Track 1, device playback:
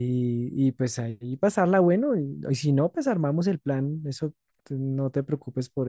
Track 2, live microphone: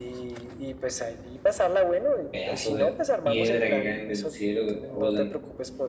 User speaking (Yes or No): Yes